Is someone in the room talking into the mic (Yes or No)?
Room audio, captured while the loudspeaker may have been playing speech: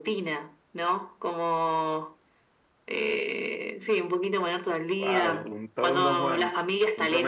Yes